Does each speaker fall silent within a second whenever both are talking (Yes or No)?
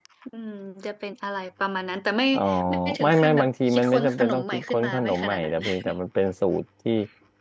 No